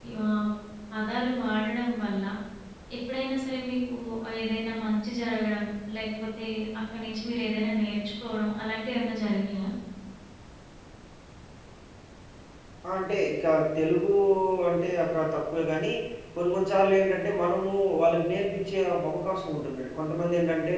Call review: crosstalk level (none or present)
none